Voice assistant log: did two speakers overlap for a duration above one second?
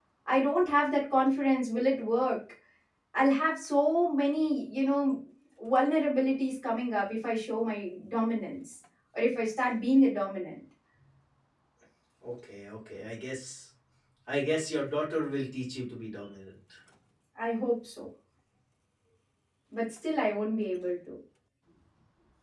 No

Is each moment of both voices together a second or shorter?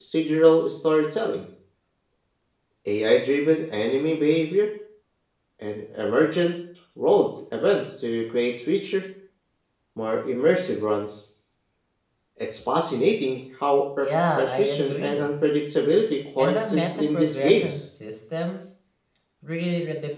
No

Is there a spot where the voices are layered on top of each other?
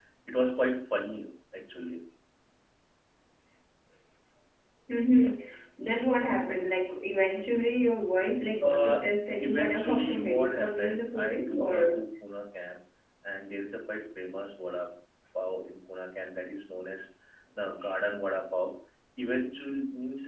Yes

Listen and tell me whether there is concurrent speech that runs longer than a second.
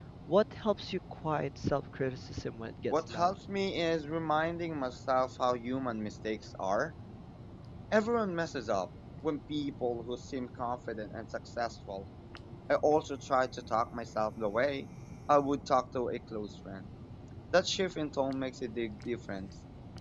No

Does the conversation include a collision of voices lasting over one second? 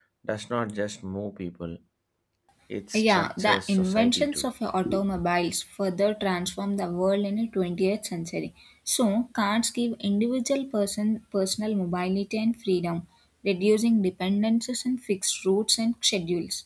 Yes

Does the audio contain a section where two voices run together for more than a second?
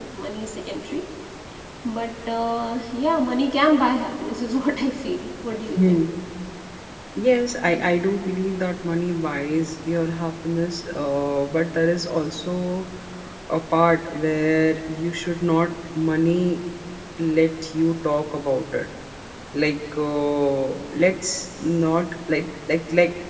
No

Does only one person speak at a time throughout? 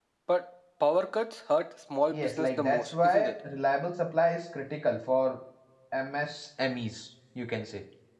No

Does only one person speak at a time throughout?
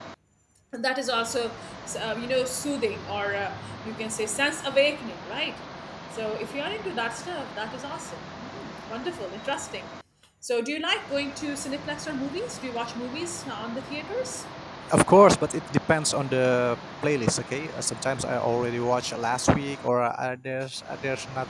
Yes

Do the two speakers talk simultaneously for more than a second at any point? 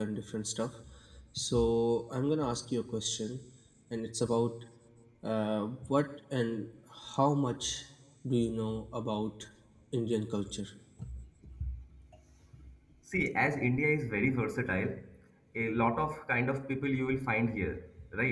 No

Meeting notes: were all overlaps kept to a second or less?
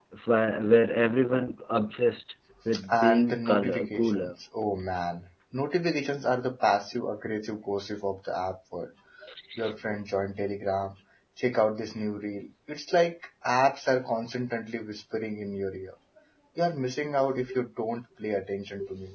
No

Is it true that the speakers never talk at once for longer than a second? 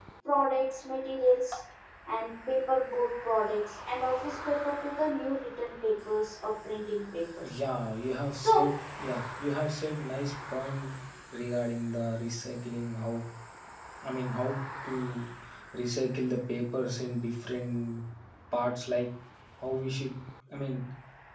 Yes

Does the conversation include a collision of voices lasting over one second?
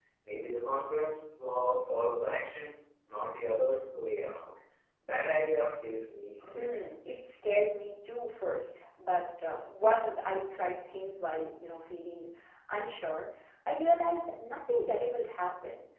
No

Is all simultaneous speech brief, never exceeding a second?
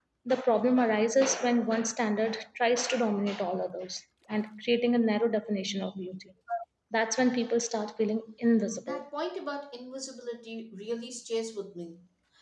Yes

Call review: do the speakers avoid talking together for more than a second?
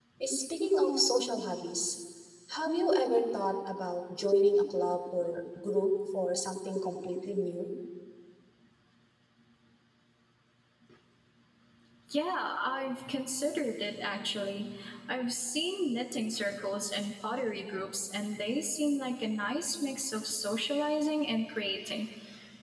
Yes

